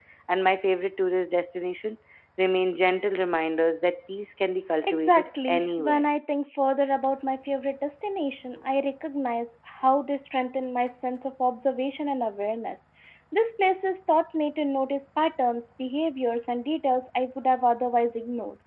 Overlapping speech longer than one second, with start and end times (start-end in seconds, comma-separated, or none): 4.8-6.1